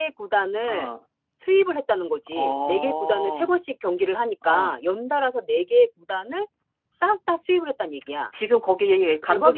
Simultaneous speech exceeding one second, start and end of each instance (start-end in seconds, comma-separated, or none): 2.3-3.5